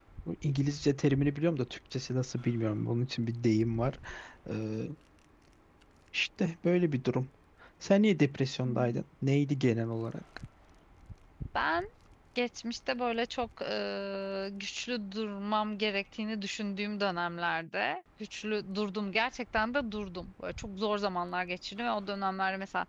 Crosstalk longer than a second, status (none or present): none